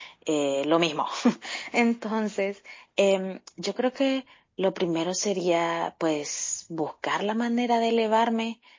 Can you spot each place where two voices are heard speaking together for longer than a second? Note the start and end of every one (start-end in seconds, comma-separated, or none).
none